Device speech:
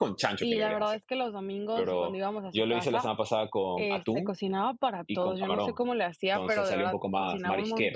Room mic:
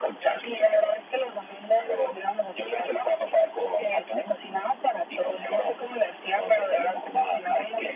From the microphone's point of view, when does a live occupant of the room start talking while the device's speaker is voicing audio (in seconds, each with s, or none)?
none